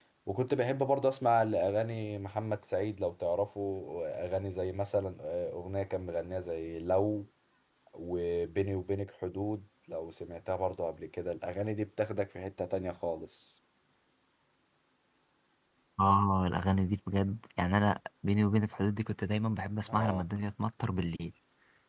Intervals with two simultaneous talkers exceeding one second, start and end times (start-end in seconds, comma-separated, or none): none